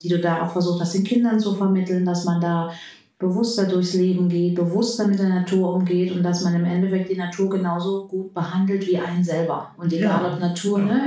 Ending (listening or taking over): listening